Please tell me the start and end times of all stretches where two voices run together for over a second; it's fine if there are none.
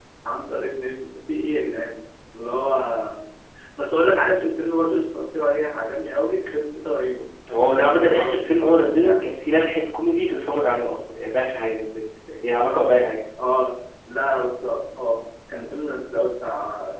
7.5-9.1

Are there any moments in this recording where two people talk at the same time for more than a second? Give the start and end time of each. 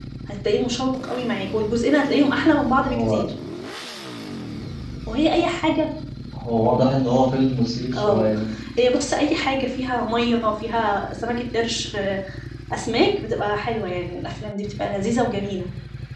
none

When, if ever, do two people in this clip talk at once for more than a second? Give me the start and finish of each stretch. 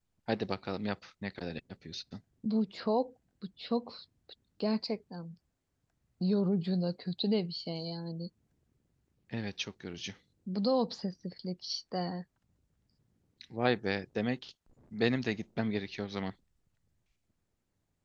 none

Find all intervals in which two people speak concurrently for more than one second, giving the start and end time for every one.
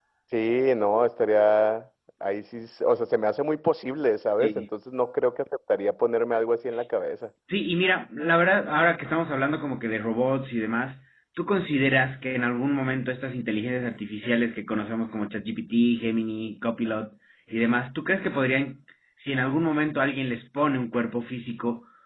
none

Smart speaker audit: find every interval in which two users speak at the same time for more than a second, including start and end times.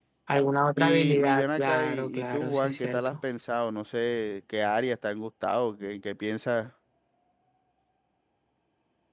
0.8-3.1

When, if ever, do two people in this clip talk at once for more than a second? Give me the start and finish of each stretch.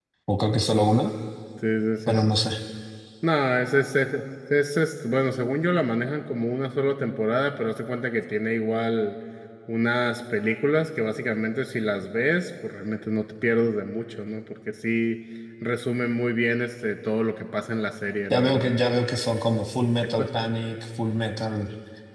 none

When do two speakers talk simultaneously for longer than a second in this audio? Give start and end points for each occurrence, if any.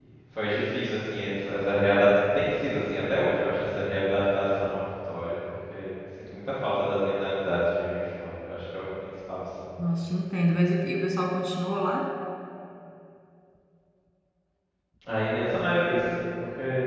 none

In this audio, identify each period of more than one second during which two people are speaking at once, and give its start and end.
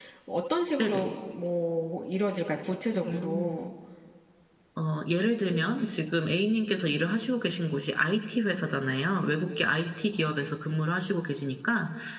none

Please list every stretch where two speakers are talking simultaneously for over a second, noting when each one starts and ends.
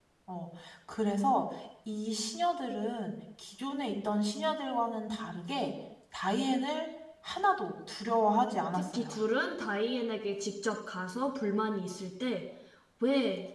none

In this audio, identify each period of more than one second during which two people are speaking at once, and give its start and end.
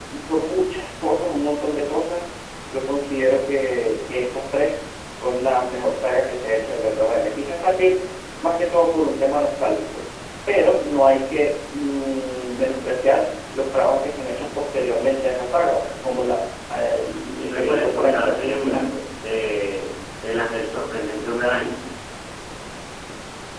17.0-18.8

